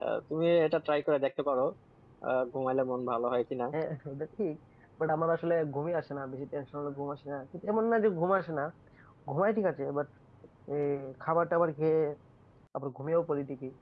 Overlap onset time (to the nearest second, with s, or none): none